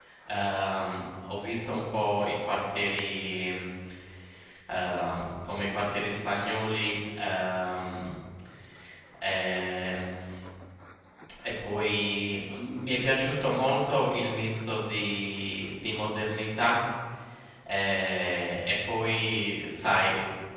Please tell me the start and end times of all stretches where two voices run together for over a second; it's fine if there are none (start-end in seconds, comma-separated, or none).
none